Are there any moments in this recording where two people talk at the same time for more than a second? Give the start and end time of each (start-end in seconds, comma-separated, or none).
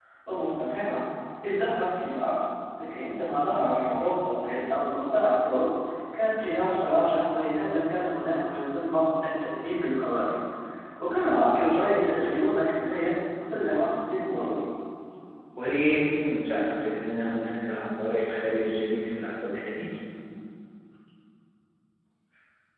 none